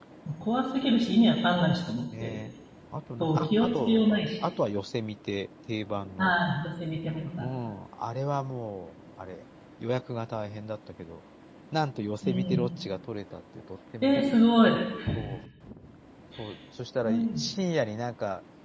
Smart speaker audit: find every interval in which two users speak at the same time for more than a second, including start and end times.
3.2-4.5

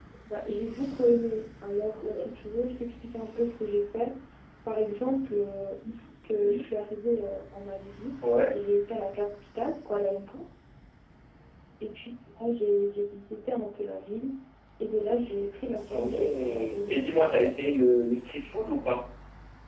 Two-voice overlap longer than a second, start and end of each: 15.9-17.7

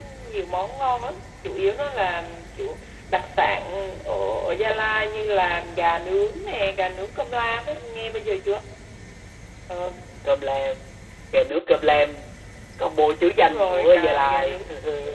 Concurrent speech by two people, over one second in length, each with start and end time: 13.4-14.6

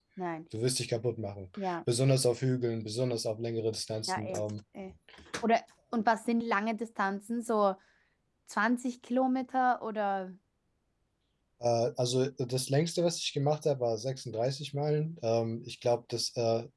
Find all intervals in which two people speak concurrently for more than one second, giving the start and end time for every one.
none

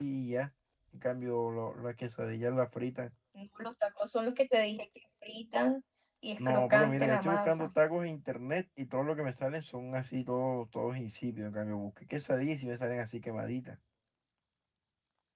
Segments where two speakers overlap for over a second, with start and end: 6.4-7.7

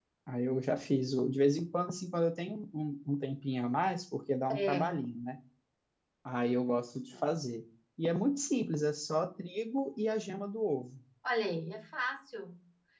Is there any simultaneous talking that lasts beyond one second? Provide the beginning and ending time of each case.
none

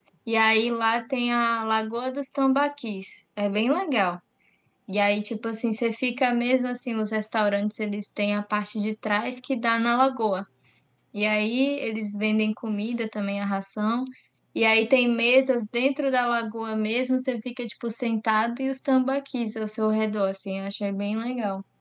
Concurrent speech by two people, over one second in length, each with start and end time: none

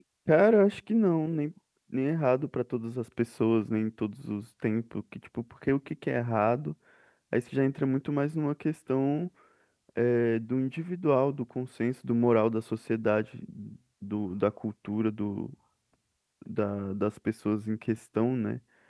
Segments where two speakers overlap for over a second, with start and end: none

